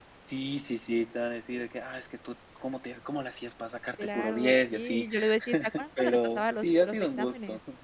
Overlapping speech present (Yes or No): Yes